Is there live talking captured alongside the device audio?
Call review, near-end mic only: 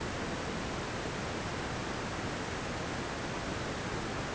No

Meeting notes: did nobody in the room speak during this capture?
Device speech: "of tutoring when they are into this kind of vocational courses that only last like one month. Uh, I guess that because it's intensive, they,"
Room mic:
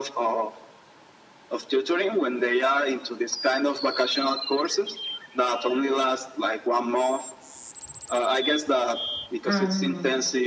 No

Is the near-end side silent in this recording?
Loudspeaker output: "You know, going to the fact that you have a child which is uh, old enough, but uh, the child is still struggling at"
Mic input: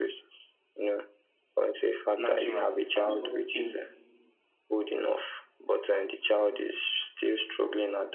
No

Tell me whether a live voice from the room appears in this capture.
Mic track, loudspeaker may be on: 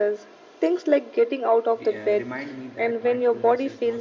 Yes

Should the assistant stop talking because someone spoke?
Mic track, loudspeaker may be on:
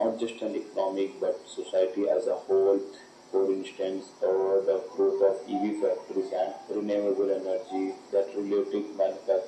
No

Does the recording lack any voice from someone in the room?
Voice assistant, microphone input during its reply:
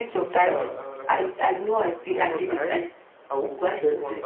No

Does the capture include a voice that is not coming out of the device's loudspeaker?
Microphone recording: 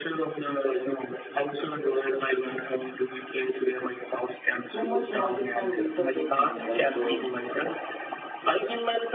Yes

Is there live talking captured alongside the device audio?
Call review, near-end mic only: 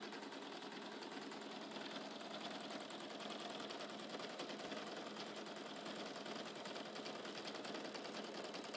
No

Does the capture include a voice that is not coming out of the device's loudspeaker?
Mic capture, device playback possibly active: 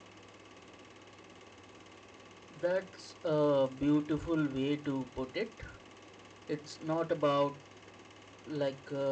Yes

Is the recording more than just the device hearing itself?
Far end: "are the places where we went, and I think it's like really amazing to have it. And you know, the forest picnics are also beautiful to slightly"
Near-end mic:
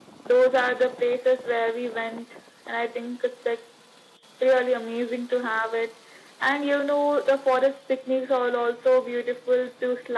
No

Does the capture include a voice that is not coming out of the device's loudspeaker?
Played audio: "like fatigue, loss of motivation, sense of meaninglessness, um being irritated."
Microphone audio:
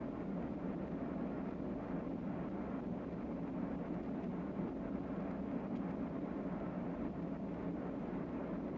No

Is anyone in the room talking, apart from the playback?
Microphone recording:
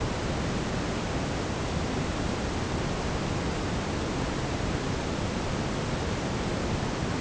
No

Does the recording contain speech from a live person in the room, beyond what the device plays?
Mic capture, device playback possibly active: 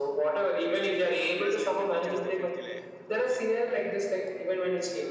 Yes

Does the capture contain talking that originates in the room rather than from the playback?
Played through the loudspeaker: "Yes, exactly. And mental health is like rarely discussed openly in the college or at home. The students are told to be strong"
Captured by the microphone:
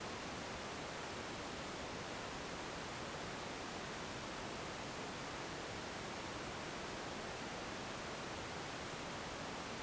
No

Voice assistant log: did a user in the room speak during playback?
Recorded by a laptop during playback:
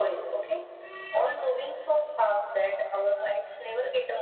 No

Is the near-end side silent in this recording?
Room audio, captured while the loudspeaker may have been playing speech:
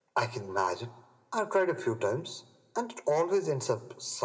Yes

